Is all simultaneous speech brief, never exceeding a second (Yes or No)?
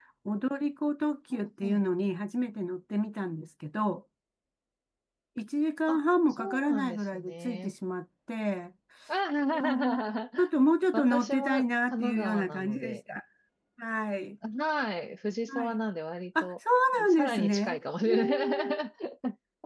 No